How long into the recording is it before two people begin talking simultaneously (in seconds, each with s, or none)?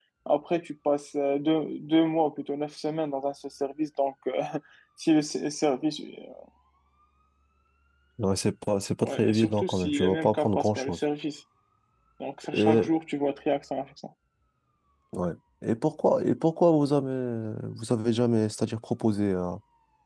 9.0 s